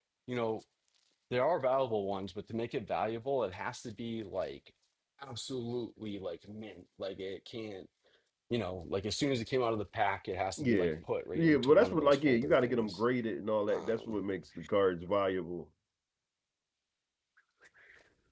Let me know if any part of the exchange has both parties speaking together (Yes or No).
Yes